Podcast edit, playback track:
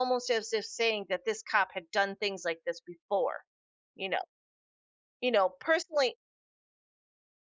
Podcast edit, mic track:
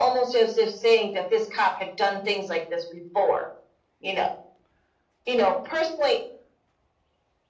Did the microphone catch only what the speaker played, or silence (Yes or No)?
Yes